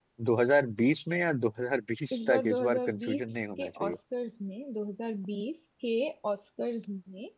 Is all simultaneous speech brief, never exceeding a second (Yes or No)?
No